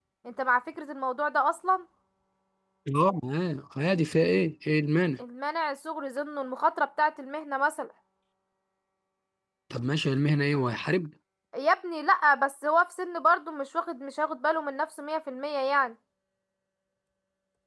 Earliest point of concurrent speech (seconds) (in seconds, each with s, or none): none